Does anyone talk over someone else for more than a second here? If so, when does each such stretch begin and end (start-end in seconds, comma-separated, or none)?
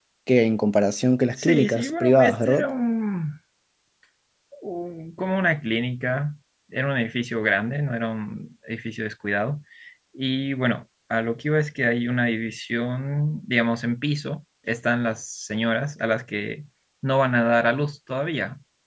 1.4-2.6